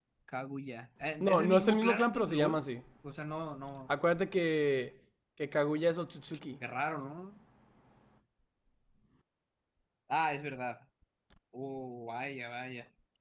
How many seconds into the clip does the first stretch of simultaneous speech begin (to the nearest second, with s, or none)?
1 s